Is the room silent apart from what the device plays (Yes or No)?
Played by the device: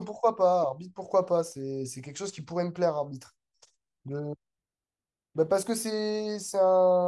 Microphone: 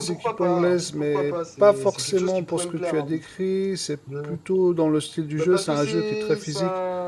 No